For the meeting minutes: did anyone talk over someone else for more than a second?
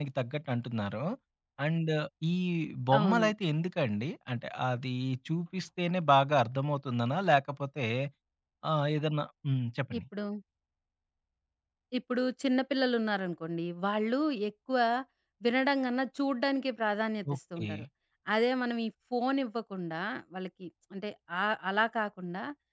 No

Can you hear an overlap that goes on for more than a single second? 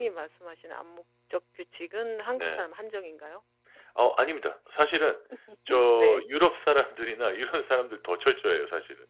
No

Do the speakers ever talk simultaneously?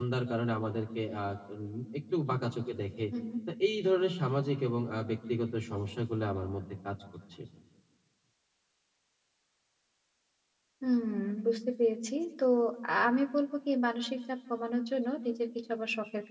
No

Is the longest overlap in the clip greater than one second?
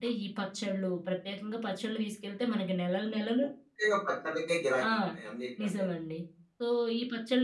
No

